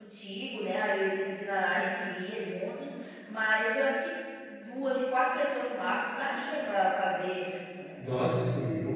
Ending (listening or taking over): listening